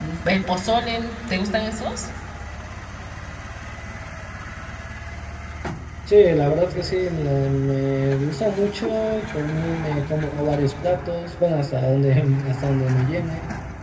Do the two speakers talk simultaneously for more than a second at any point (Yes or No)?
No